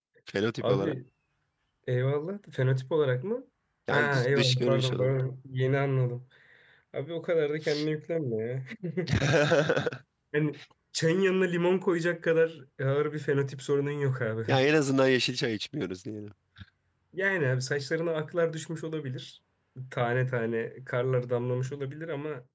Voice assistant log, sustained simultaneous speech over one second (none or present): present